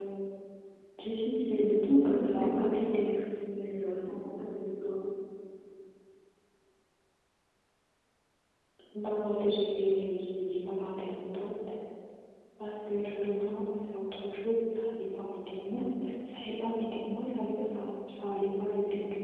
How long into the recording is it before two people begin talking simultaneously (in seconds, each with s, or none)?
1.5 s